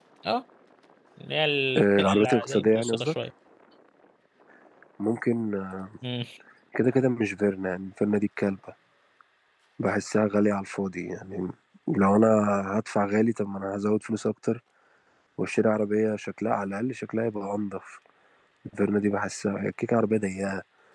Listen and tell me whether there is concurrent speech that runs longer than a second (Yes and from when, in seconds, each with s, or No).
Yes, from 1.8 s